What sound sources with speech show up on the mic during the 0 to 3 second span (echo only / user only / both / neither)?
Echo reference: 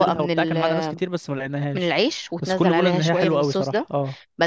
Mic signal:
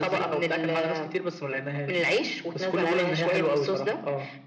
echo only